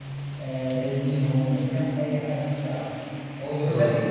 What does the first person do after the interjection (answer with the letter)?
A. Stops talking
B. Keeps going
B